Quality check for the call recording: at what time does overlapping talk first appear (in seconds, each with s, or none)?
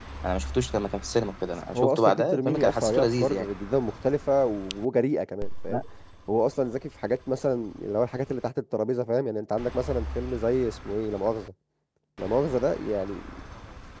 1.7 s